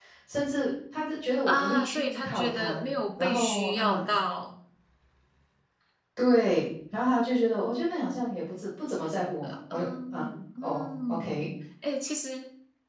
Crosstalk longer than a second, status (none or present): present